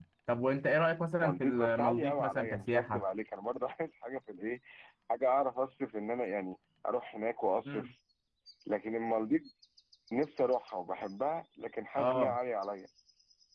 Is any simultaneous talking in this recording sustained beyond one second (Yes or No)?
Yes